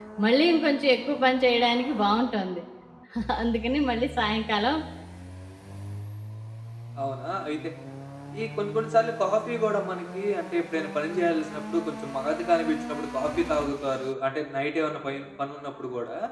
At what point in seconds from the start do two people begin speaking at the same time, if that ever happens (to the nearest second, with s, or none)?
none